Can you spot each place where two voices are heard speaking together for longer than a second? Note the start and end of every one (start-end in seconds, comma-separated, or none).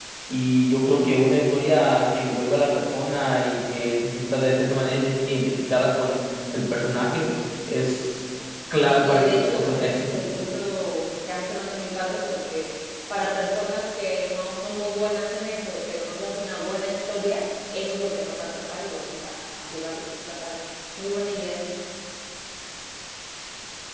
8.8-10.2